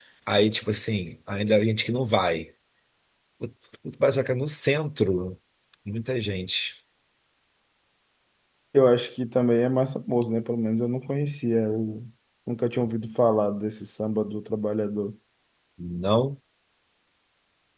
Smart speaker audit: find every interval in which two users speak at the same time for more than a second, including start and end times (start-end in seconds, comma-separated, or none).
none